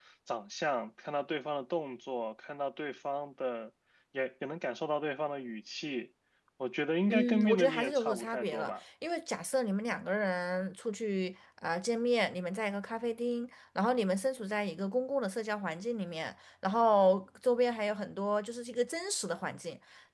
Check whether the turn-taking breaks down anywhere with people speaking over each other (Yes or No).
Yes